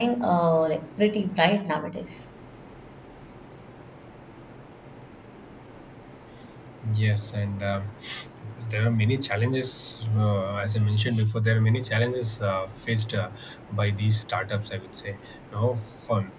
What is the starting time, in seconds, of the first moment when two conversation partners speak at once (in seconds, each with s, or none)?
none